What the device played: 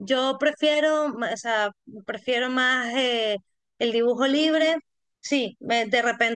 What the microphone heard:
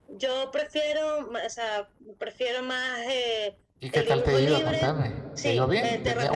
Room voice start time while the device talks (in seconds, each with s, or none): 3.8 s